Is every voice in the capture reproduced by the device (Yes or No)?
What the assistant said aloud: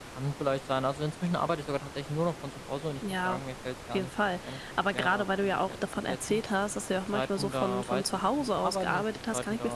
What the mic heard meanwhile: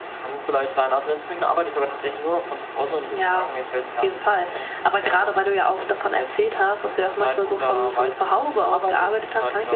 Yes